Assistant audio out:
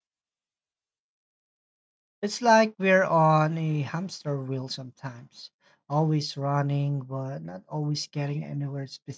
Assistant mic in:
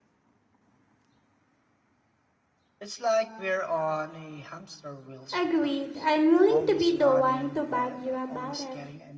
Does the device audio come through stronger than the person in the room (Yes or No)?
No